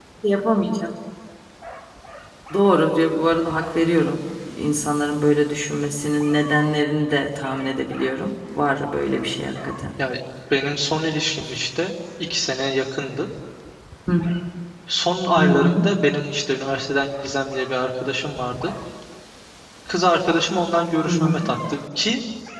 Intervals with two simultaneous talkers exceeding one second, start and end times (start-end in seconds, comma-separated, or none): none